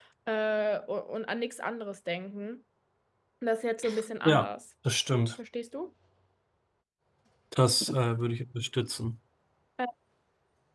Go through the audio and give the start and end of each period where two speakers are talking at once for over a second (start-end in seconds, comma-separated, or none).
none